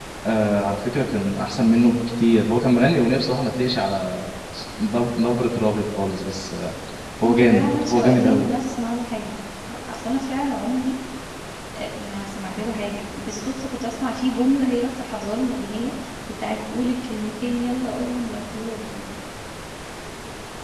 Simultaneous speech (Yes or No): Yes